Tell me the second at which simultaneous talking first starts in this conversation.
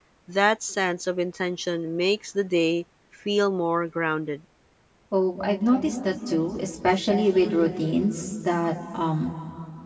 none

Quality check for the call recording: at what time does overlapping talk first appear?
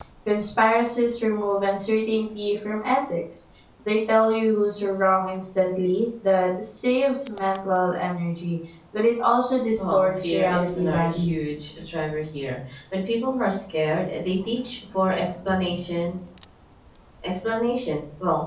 9.8 s

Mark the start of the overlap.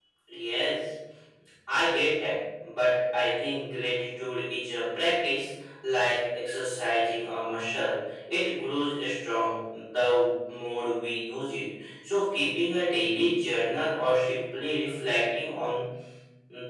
none

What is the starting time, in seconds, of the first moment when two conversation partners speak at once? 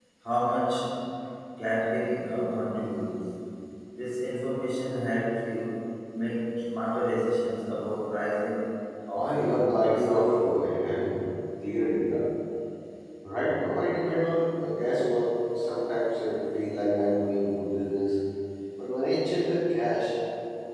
9.2 s

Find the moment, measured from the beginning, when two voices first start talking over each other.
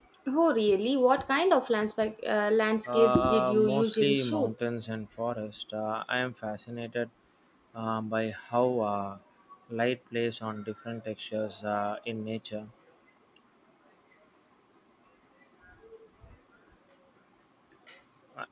2.9 s

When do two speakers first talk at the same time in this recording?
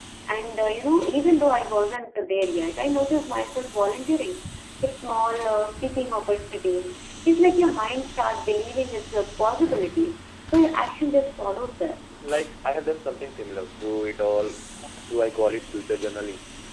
none

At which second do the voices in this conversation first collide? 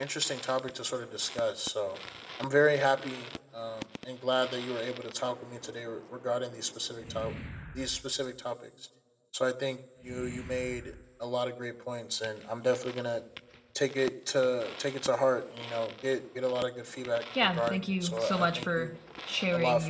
17.4 s

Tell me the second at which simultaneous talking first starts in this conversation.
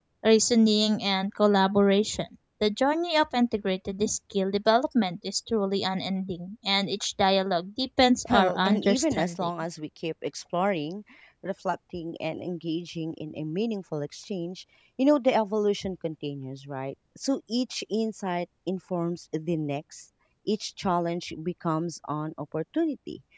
8.3 s

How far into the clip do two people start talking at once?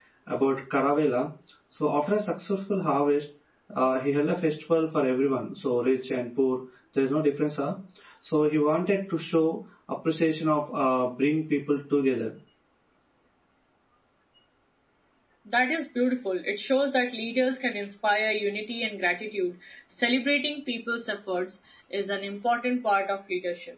none

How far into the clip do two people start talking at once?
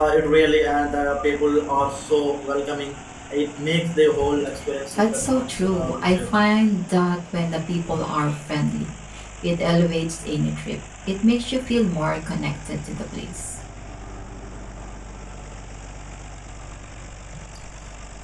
4.9 s

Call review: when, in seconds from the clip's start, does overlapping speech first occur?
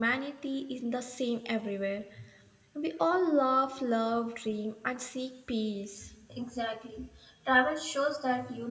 none

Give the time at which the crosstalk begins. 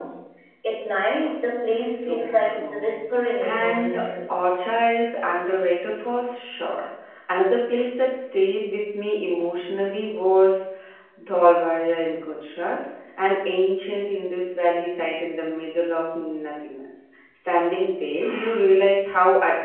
1.8 s

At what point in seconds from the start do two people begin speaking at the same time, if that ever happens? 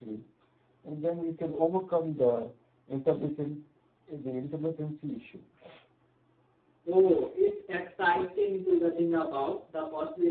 none

